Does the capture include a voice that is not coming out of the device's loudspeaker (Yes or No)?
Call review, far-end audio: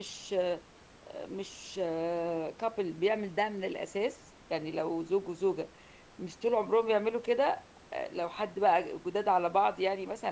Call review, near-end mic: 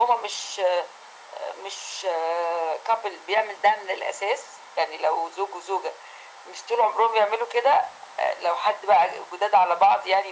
No